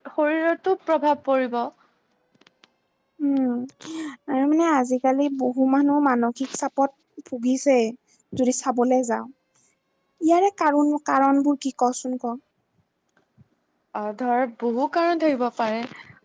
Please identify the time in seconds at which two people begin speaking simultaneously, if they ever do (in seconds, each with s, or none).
none